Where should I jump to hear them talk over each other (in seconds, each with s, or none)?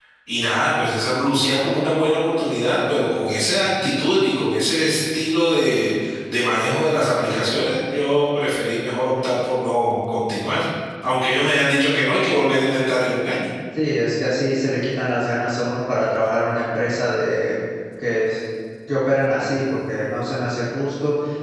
none